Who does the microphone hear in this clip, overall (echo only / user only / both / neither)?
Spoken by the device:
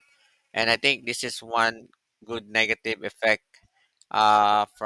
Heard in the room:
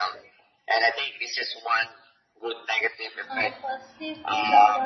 both